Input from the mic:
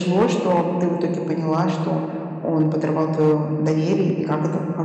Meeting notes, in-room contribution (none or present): none